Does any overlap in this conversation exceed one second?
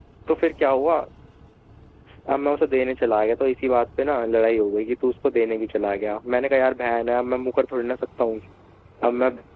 No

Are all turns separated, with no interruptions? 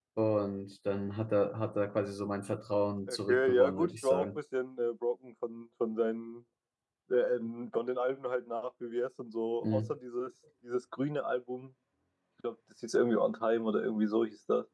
No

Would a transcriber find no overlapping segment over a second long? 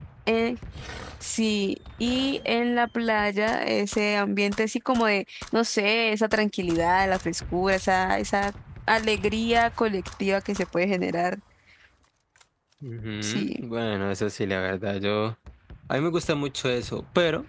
Yes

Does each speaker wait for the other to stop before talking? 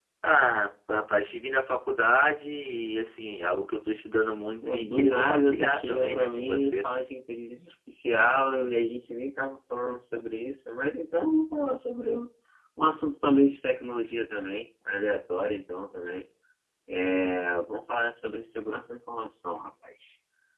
No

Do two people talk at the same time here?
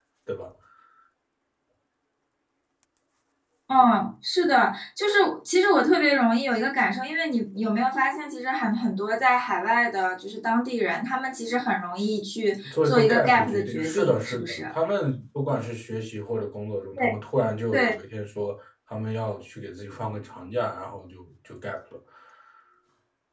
Yes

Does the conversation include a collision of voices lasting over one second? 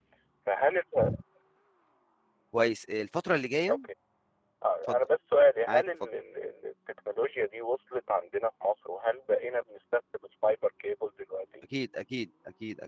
No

